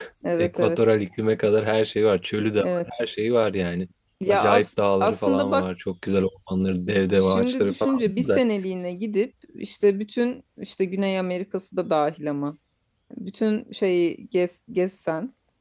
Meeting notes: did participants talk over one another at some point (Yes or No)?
Yes